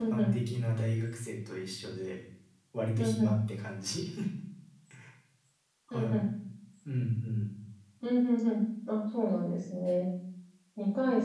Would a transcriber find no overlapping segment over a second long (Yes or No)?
Yes